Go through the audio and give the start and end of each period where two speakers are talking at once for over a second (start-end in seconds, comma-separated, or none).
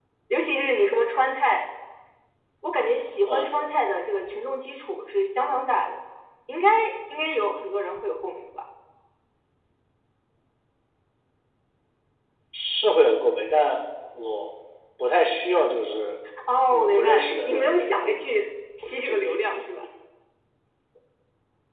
16.7-18.2